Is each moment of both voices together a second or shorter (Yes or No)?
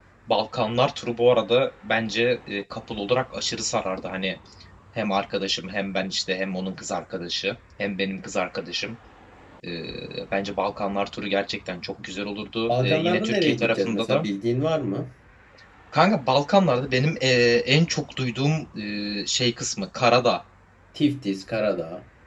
No